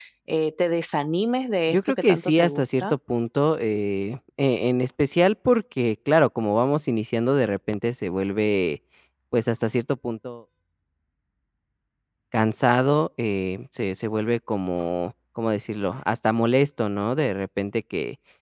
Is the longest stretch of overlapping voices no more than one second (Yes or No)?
No